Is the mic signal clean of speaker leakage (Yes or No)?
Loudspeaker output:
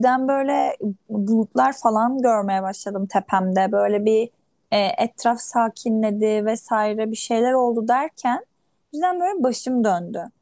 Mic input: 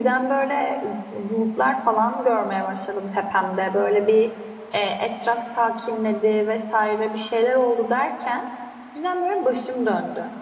No